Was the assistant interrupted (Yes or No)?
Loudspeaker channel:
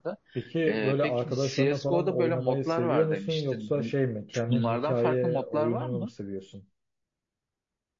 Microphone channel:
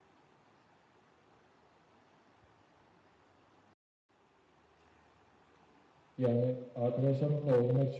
Yes